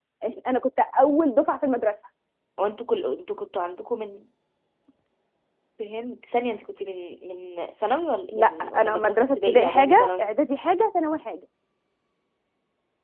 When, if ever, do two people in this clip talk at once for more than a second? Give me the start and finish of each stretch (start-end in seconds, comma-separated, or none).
8.3-10.3